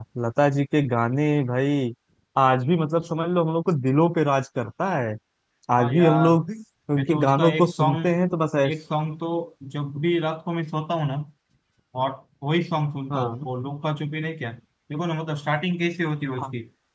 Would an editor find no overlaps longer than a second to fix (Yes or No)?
No